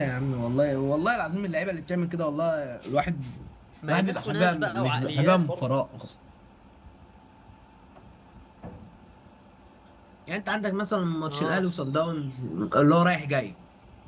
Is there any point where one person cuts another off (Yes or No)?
Yes